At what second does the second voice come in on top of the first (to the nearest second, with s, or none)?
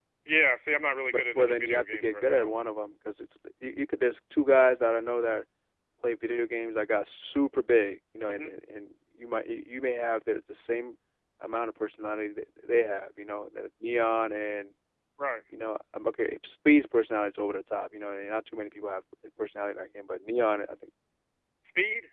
1 s